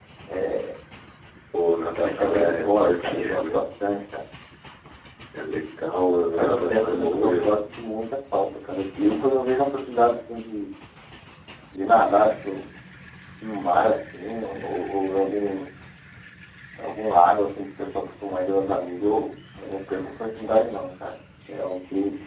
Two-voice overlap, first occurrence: 2.0 s

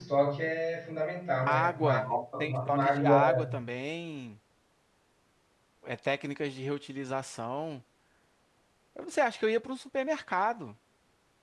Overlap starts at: 1.4 s

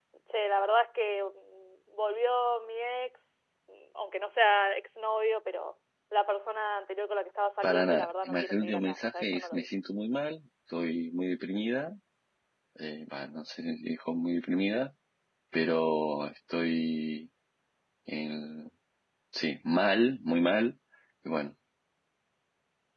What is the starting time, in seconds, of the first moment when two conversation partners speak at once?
7.6 s

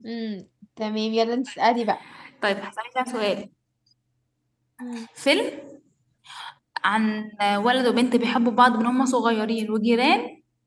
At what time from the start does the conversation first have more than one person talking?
none

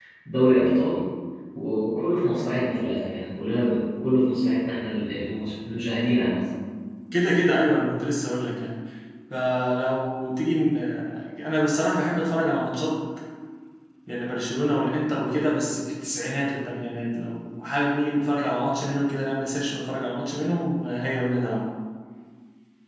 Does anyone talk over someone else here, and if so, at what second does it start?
none

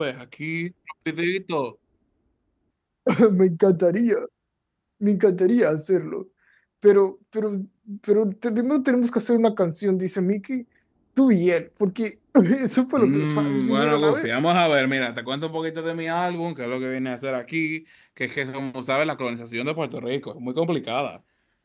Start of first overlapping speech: 13.0 s

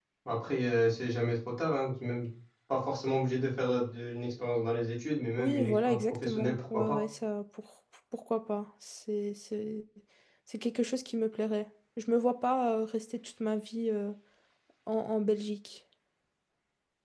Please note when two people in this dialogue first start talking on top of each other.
5.4 s

